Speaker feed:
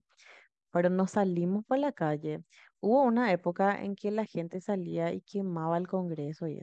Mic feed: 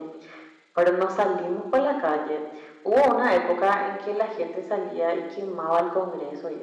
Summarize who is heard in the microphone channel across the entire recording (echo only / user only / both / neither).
echo only